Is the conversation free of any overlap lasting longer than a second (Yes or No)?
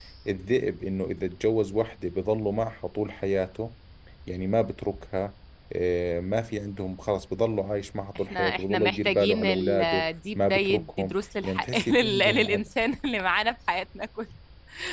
No